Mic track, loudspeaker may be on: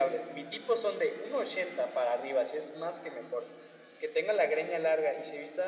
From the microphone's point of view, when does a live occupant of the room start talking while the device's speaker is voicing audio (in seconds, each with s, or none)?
none